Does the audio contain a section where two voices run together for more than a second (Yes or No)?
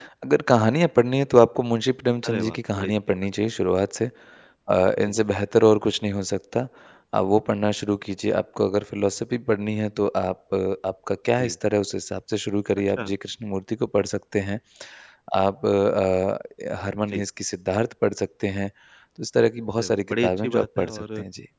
Yes